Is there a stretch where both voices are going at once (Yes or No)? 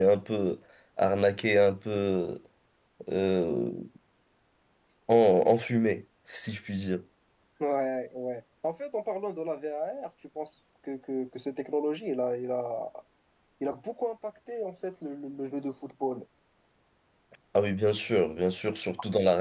No